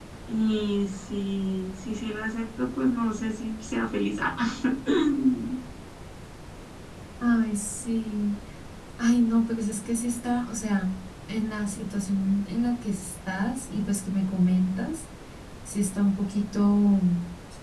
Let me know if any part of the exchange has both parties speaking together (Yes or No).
No